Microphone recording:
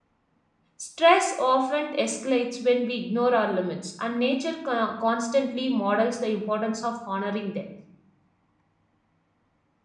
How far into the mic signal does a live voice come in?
0.8 s

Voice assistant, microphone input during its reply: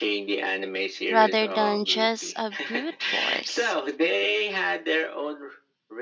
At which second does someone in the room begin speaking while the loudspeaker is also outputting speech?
1.1 s

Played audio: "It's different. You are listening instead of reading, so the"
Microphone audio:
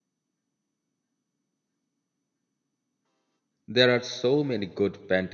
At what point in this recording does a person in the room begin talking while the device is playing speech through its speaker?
3.7 s

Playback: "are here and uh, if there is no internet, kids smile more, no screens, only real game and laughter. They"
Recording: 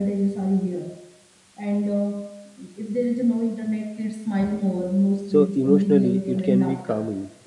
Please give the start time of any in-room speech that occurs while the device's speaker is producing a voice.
5.2 s

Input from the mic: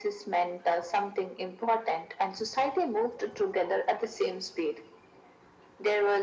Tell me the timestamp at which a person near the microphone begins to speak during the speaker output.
none

